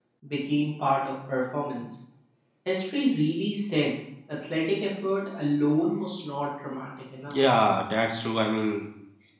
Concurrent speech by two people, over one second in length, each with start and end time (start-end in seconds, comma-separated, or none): none